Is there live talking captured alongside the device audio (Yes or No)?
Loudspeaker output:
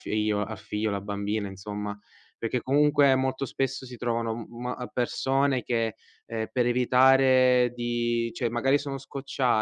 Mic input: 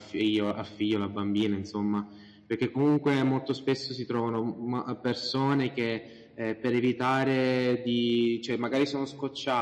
No